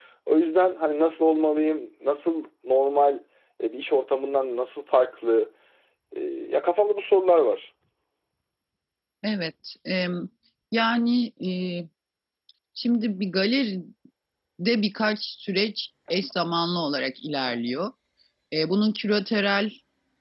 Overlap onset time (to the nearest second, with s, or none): none